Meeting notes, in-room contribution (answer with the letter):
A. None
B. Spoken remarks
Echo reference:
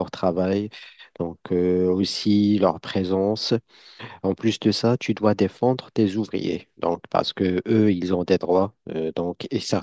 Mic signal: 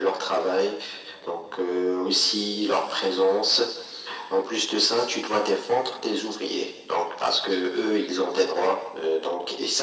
A